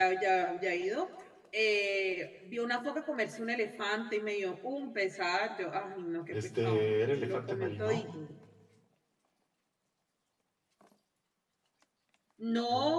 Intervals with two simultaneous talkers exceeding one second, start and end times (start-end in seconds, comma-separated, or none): 6.3-8.1